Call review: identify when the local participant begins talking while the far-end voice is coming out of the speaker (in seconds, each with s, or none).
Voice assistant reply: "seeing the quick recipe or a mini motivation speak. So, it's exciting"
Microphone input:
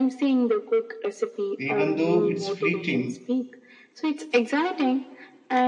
1.6 s